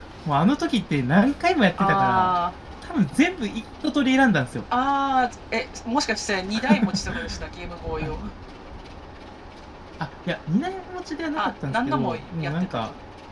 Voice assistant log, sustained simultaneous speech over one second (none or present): present